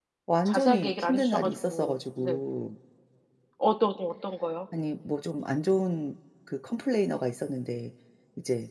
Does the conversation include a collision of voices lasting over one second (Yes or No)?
Yes